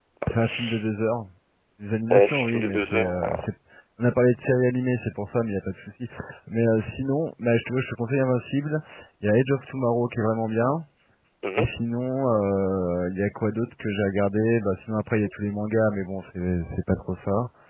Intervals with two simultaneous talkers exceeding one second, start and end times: 2.1-3.4

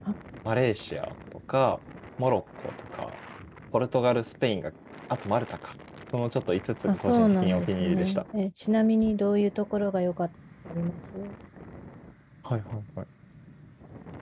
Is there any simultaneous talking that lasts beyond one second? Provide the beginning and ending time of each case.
6.9-8.2

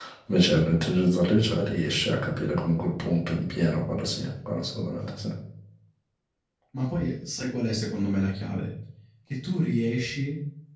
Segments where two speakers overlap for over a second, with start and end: none

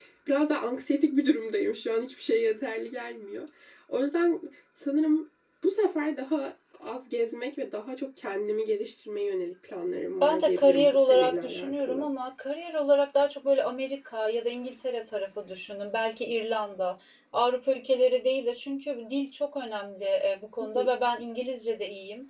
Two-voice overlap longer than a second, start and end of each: 10.2-12.1

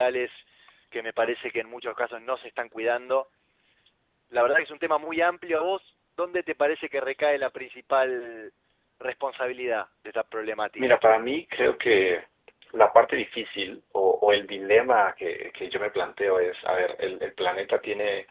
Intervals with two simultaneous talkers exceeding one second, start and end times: none

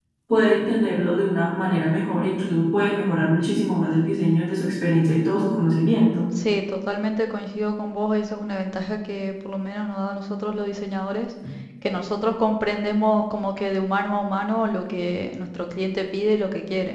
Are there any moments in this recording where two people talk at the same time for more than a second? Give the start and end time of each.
none

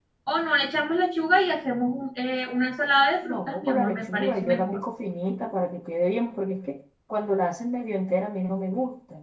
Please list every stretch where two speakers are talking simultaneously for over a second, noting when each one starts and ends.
3.2-4.8

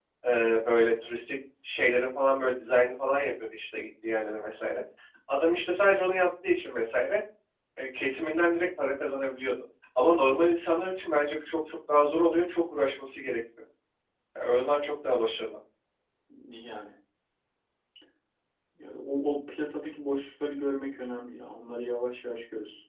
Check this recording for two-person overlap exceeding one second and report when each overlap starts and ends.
none

